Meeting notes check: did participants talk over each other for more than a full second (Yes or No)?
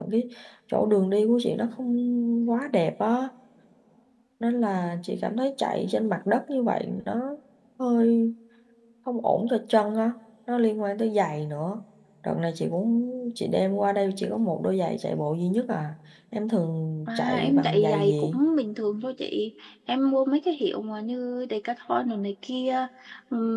Yes